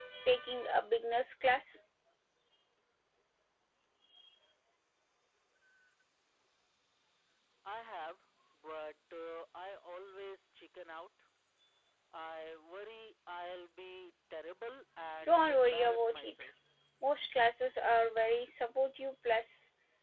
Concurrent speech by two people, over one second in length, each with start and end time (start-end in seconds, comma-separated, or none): 15.2-16.5